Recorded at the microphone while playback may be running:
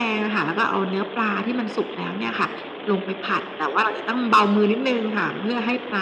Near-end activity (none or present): none